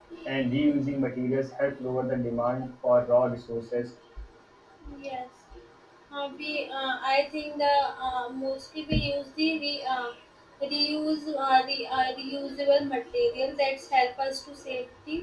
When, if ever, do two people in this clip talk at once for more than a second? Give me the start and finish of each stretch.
none

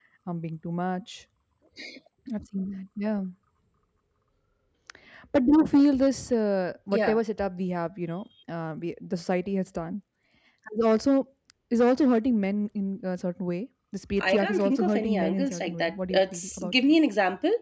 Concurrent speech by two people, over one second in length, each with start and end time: 14.2-16.7

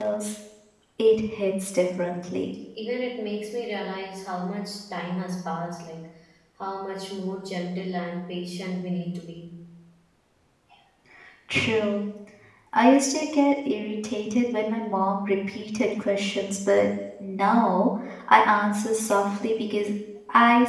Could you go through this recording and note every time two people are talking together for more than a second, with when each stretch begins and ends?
none

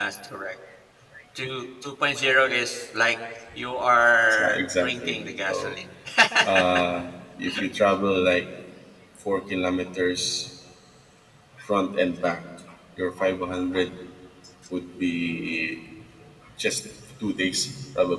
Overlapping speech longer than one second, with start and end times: 4.3-5.8

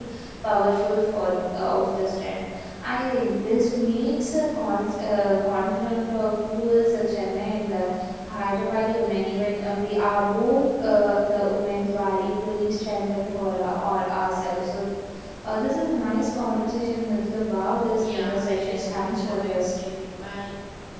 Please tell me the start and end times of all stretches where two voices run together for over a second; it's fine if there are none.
18.0-19.7

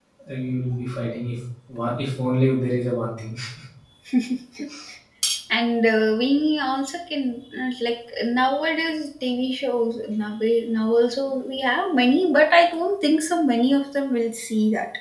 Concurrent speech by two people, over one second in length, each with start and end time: none

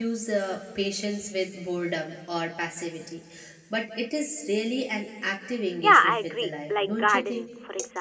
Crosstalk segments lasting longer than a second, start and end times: 5.8-7.5

